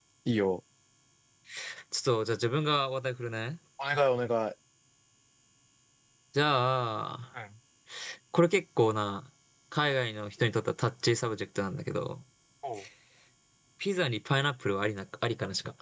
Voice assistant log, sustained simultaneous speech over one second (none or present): none